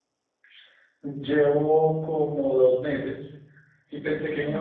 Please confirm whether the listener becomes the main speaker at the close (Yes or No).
No